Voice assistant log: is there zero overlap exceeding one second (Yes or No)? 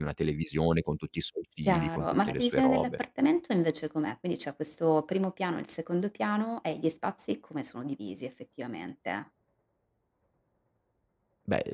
No